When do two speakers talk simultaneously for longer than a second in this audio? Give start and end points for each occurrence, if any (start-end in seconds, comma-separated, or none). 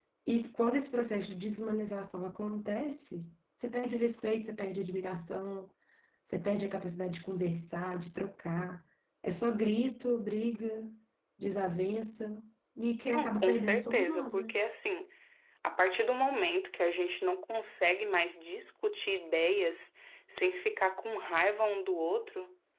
13.1-14.5